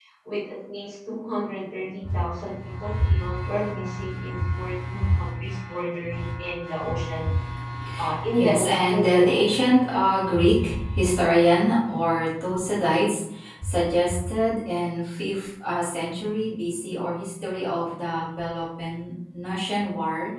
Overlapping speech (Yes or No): Yes